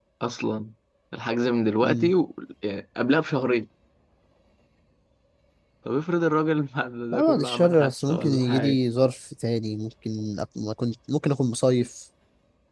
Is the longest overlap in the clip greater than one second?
Yes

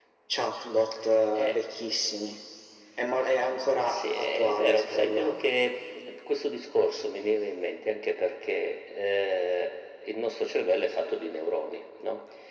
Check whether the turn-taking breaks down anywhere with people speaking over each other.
Yes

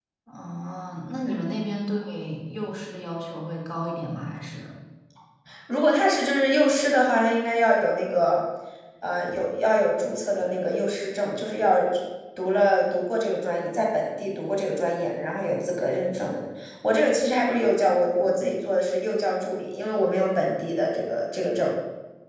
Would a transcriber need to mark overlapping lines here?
No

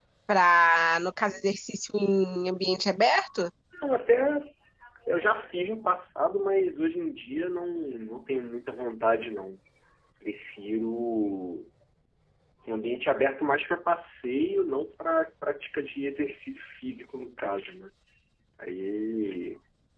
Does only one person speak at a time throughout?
Yes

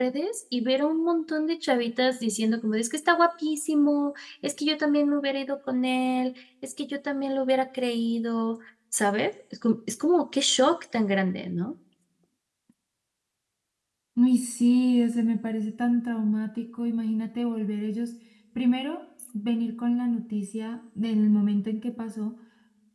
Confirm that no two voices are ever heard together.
Yes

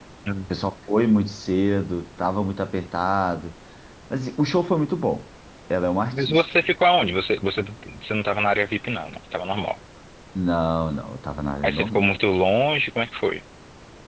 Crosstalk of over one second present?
No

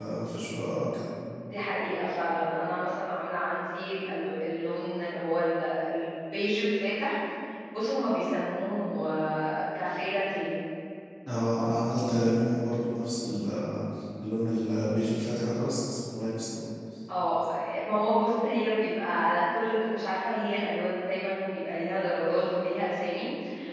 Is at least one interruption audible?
No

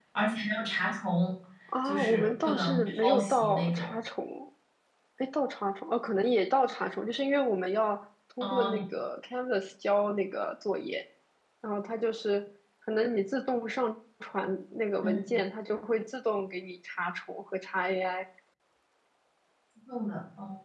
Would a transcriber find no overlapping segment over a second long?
No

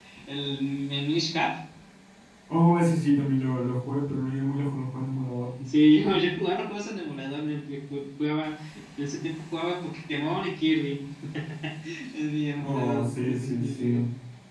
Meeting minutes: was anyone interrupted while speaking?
Yes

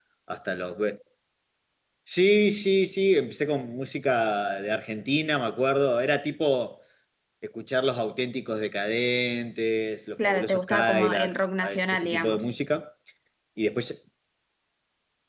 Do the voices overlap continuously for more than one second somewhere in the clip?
Yes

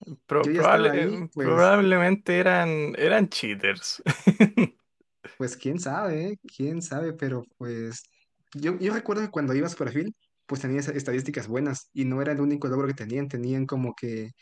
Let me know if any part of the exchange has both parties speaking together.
Yes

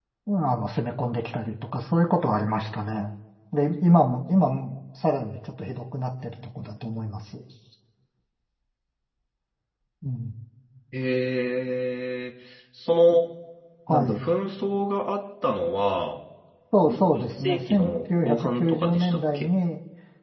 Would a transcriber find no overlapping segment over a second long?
No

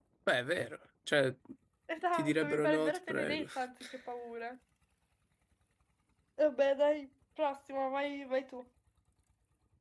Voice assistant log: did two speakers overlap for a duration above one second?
Yes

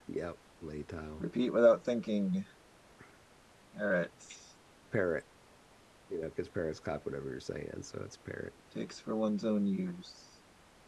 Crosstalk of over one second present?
No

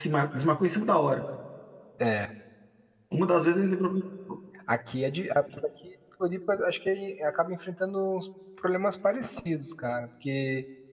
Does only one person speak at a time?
Yes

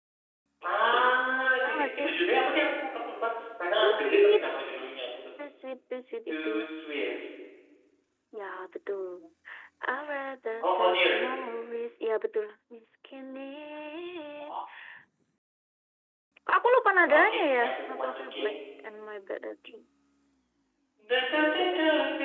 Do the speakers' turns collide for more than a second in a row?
Yes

